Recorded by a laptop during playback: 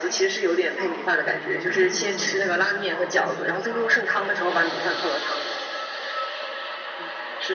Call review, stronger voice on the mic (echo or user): echo